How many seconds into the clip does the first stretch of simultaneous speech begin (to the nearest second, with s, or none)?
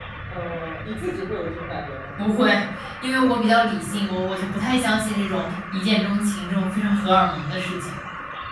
none